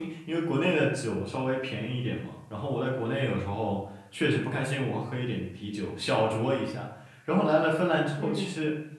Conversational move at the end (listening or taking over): listening